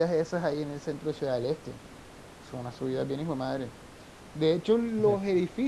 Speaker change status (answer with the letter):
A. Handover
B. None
B